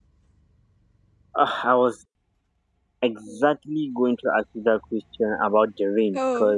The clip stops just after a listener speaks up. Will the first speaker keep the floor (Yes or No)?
Yes